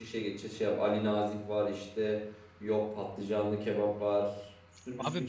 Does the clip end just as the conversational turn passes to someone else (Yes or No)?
Yes